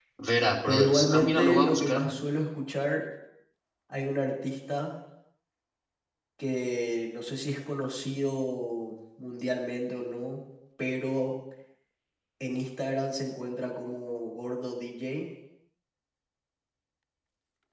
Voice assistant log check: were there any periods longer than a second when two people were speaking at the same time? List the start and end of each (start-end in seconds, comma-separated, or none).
0.7-2.1